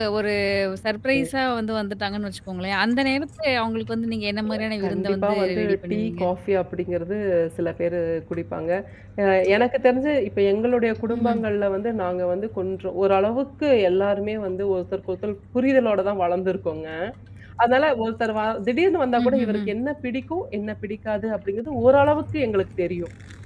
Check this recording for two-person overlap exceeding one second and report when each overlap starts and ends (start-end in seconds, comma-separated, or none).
4.8-6.2